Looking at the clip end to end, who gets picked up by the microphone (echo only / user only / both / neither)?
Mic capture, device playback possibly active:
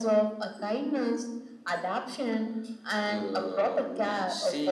echo only